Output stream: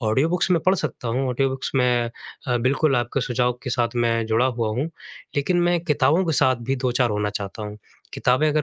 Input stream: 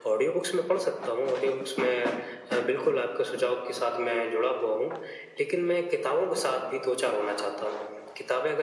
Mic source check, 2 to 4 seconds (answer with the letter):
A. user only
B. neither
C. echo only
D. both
C